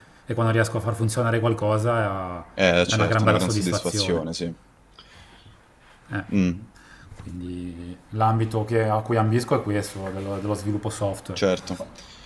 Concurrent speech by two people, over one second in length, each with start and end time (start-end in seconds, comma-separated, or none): 2.9-4.2